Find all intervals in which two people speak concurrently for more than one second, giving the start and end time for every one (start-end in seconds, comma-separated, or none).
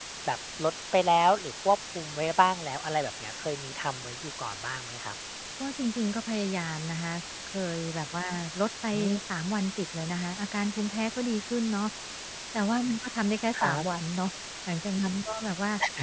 none